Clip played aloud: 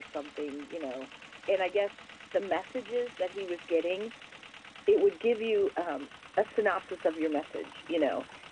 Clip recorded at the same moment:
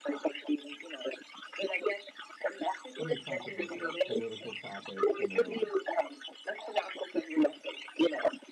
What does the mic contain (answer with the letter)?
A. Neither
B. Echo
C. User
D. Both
D